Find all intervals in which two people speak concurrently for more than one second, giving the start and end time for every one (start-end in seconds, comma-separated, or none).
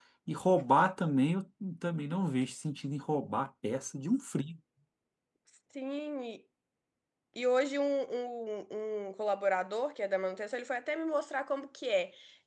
none